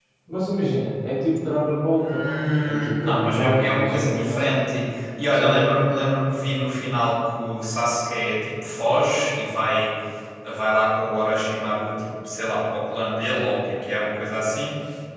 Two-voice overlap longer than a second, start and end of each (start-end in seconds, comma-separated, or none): 1.9-4.4